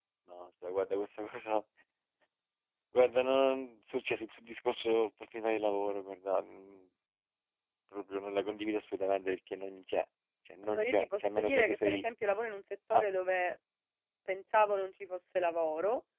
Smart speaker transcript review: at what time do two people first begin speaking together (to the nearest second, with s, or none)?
11 s